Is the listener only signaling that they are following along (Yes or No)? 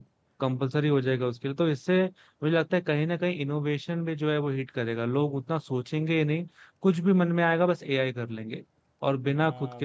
No